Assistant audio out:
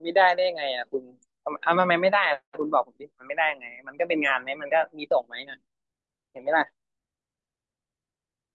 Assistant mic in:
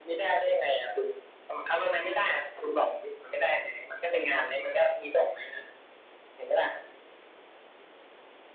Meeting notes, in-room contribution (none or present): none